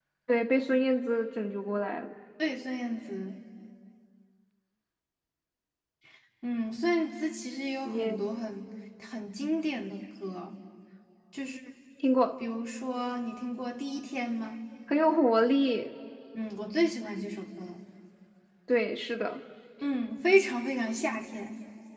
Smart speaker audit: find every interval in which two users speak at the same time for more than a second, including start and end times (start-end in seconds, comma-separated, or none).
none